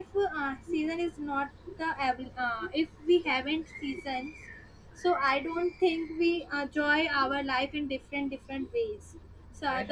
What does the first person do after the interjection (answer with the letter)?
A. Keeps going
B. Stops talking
B